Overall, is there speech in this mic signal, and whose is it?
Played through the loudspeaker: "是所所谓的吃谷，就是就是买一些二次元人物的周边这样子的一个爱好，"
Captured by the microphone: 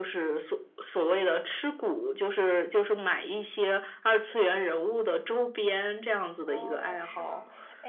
both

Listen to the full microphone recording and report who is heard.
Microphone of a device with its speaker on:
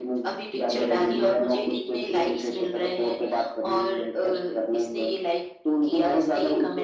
echo only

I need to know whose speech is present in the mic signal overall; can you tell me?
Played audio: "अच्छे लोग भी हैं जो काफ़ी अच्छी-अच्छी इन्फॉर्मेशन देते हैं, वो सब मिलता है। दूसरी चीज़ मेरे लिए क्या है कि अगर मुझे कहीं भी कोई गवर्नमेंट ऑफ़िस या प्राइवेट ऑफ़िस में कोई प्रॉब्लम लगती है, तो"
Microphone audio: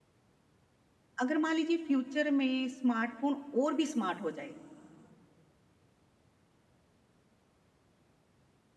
user only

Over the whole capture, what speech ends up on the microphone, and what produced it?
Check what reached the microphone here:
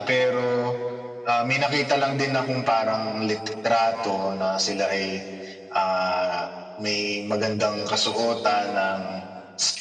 echo only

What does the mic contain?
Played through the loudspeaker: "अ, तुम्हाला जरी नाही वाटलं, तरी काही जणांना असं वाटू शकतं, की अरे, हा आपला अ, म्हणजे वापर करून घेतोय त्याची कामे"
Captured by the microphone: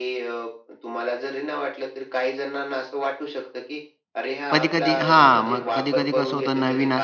both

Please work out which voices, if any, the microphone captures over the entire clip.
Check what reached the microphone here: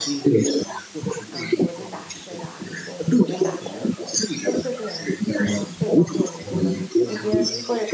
both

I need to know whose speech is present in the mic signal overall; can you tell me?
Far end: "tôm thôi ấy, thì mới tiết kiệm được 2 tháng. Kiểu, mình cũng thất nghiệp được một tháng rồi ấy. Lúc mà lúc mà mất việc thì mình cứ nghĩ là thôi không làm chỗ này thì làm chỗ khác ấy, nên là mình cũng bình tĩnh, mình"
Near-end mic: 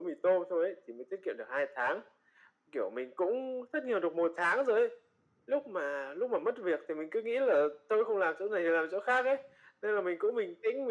echo only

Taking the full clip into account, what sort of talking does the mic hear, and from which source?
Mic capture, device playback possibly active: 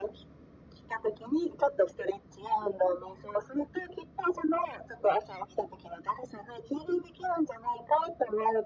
echo only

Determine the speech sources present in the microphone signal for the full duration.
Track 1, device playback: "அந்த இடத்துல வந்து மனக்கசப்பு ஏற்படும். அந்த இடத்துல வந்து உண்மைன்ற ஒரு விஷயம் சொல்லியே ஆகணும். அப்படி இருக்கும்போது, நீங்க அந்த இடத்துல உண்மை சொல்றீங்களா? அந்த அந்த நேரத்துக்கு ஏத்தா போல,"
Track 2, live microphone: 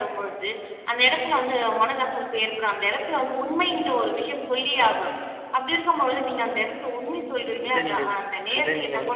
both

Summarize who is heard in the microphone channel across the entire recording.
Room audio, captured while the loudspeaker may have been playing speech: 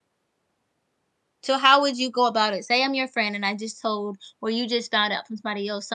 user only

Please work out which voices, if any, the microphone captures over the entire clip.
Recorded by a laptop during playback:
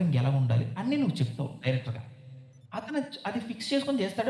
echo only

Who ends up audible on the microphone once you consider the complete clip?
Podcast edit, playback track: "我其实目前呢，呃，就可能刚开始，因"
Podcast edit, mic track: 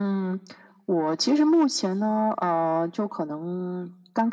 echo only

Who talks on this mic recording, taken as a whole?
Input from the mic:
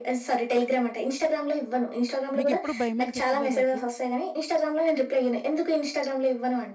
both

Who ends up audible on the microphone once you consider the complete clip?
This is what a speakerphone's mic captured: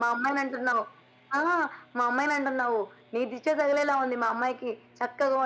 echo only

